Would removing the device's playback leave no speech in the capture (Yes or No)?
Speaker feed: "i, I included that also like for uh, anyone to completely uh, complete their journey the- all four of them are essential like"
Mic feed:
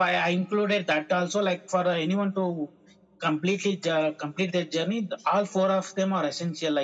Yes